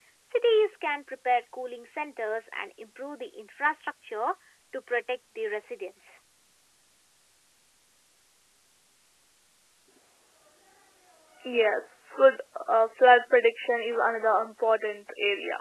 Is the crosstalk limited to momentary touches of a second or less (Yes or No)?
Yes